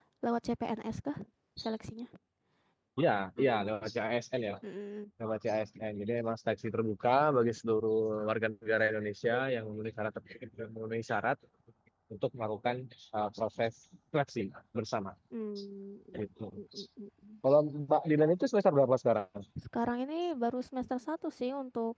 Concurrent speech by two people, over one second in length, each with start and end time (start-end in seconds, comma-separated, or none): none